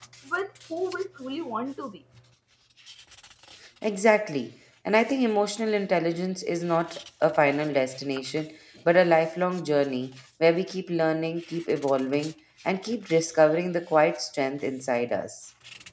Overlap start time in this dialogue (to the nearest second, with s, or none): none